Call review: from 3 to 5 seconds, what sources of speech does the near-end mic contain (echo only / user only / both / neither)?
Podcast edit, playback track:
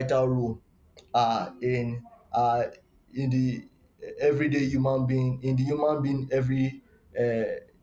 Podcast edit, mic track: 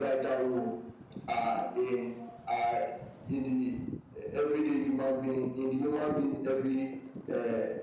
echo only